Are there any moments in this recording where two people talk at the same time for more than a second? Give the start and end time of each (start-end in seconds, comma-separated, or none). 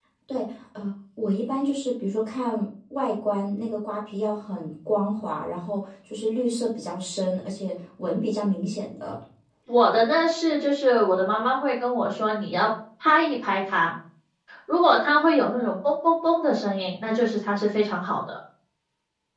none